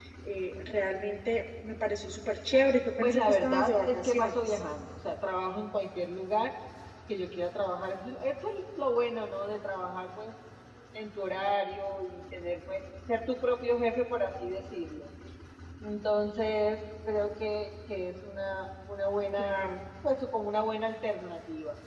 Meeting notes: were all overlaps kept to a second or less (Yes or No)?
No